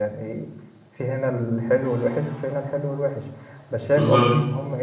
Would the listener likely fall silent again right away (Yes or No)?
Yes